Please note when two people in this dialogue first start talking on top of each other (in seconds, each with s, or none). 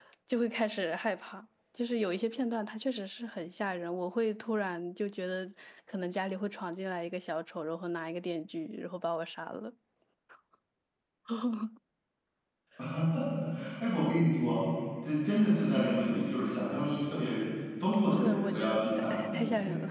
18.1 s